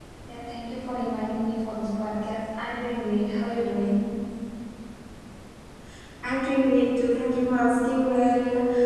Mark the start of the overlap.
none

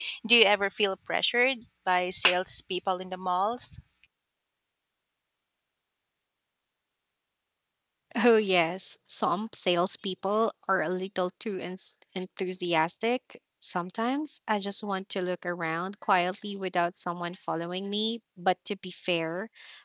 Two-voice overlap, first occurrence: none

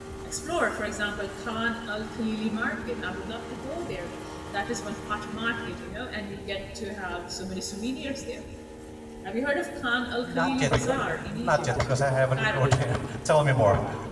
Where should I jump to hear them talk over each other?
10.2 s

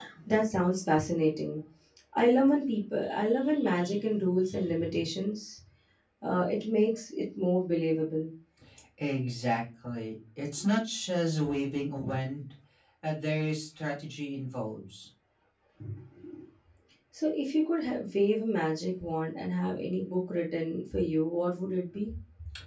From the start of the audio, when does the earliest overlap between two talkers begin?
none

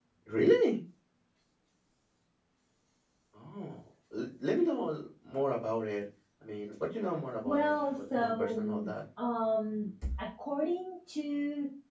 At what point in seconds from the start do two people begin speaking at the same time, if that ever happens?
7.4 s

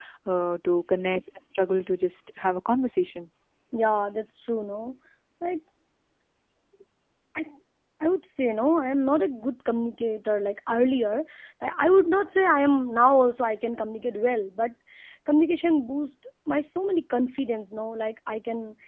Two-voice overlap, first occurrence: none

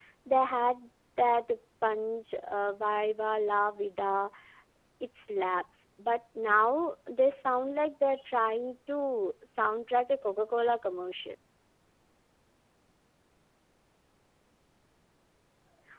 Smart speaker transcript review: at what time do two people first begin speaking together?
none

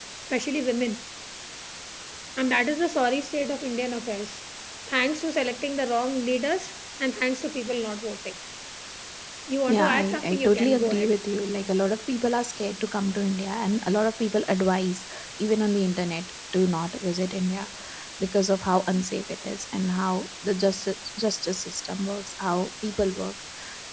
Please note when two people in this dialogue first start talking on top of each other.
9.7 s

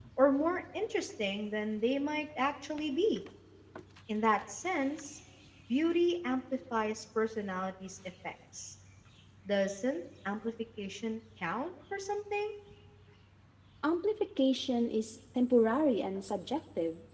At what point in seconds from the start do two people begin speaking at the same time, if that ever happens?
none

